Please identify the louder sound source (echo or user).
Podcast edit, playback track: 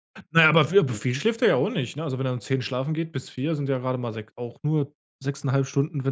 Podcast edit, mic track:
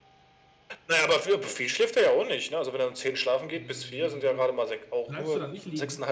echo